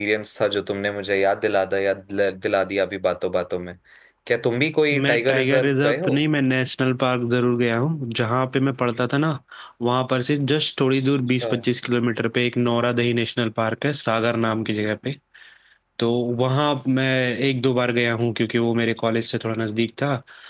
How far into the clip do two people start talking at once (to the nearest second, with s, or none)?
5 s